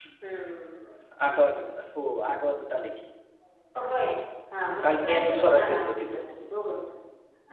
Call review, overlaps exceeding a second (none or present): present